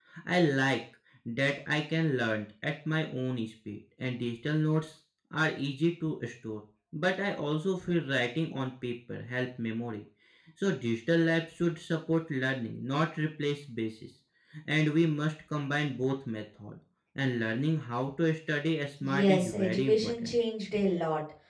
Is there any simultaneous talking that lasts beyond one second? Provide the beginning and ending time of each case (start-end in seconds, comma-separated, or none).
19.0-20.4